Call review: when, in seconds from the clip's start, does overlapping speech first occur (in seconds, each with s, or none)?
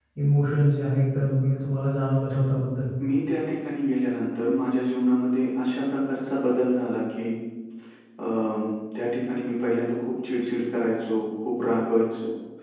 none